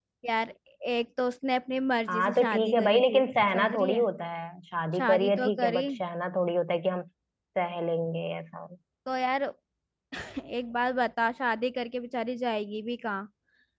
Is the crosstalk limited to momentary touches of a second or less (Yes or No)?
No